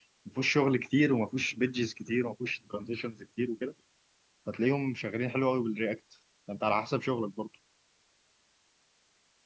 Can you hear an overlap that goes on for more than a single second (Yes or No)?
No